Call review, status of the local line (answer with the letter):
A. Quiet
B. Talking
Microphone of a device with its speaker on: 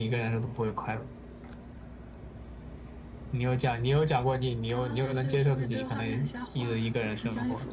A